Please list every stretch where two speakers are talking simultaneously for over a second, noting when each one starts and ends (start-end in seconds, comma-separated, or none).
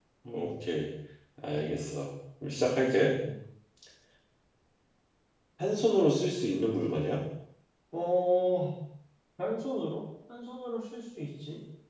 none